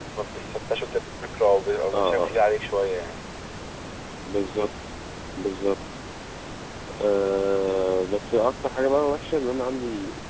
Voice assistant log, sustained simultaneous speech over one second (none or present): none